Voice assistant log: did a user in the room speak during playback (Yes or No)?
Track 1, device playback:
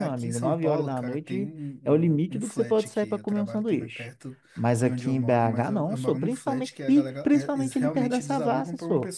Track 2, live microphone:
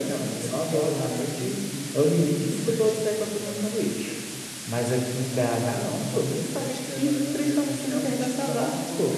No